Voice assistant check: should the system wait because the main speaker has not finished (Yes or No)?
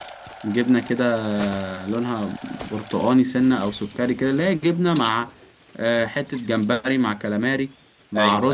Yes